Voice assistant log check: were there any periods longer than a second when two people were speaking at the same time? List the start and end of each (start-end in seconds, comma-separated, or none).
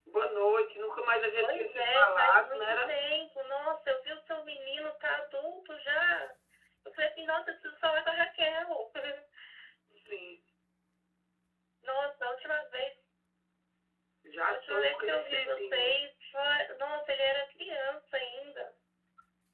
1.4-2.9, 14.5-16.0